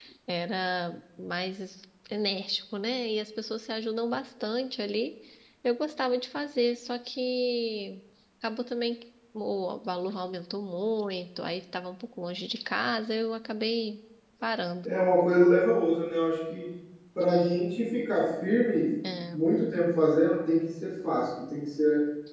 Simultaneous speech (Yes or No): No